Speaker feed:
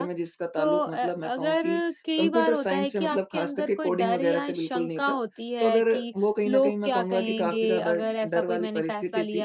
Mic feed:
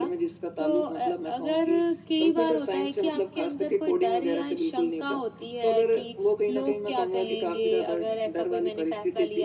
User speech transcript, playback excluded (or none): none